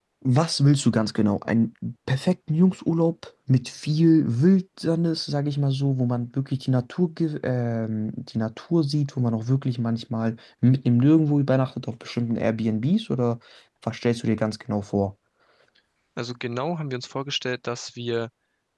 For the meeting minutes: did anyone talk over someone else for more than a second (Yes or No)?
No